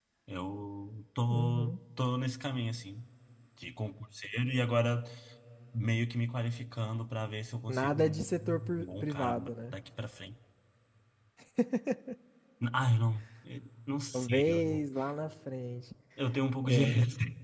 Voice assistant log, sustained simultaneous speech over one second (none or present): present